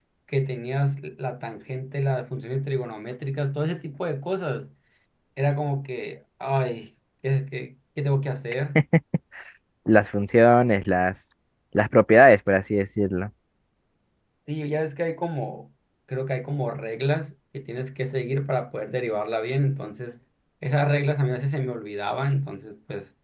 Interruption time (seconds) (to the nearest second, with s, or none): none